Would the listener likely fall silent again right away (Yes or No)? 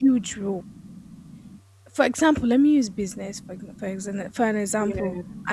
Yes